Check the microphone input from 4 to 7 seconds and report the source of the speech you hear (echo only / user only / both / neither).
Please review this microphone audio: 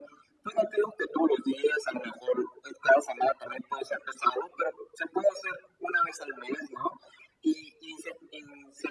echo only